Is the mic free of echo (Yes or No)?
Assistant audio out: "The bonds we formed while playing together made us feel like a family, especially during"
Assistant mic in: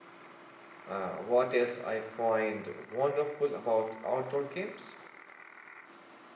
Yes